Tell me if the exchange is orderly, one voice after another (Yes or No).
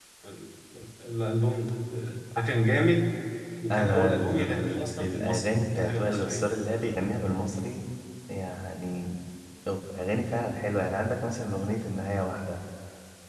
No